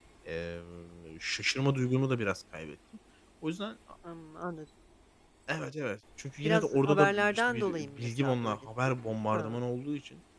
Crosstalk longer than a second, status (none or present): present